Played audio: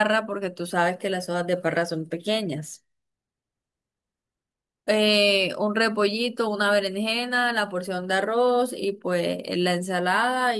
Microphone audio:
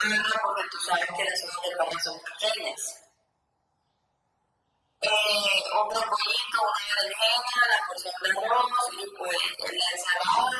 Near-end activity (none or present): none